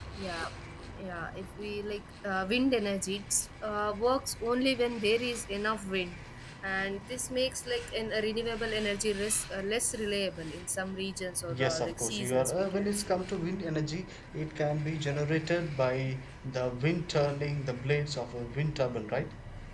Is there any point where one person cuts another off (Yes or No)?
Yes